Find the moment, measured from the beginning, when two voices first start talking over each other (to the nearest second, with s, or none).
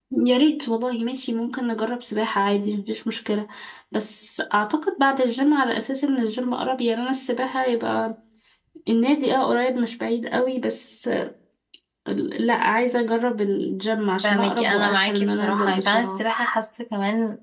14 s